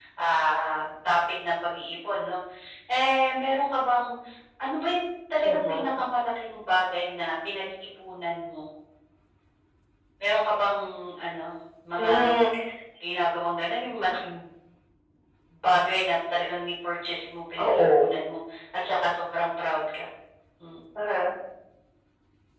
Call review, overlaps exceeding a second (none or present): none